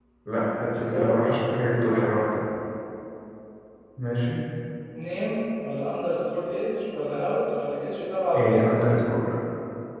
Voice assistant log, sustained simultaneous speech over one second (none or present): none